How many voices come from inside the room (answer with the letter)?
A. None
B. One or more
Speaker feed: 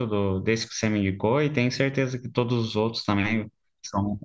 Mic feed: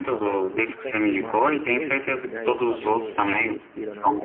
B